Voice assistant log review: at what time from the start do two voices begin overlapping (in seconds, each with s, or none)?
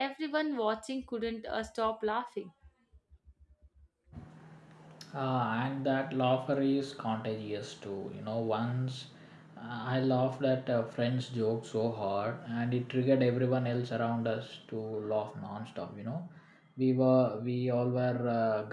none